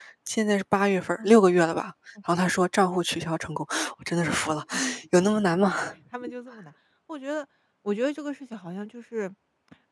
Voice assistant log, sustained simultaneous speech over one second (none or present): none